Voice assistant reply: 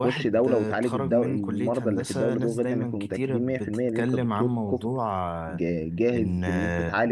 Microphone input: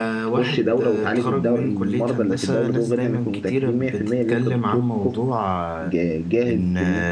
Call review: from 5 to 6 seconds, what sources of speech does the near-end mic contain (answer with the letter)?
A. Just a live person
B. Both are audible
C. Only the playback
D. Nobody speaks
C